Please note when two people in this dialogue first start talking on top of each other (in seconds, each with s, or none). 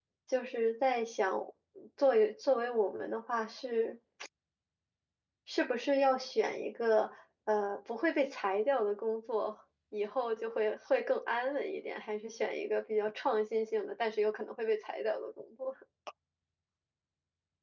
none